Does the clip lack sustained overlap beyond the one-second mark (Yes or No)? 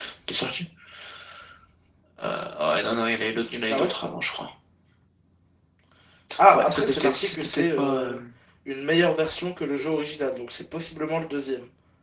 No